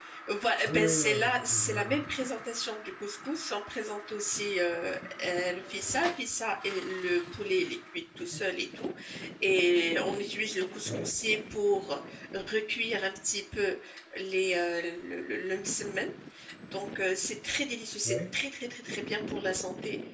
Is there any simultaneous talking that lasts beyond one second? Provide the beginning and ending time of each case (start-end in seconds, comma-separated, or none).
0.7-1.9